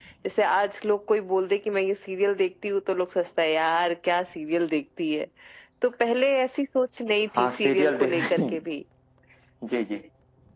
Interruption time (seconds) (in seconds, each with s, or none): 7.4 s